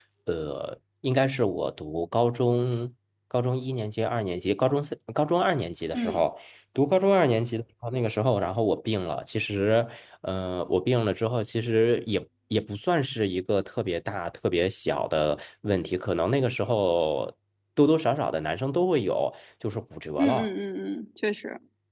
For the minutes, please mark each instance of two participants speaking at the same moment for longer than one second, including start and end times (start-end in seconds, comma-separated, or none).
none